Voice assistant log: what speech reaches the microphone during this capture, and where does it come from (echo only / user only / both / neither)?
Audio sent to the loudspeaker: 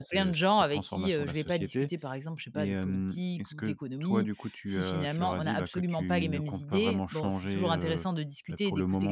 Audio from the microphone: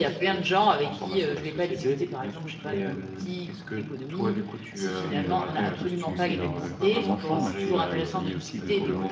both